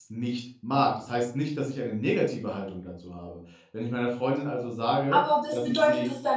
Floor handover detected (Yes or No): Yes